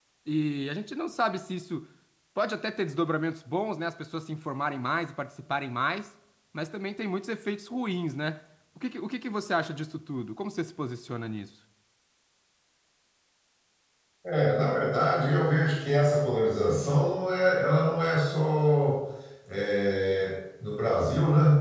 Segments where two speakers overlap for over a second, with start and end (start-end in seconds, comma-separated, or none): none